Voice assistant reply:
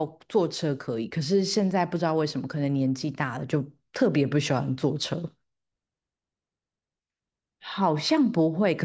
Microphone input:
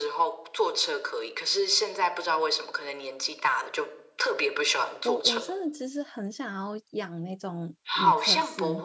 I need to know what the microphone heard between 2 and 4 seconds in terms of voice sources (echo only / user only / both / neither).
echo only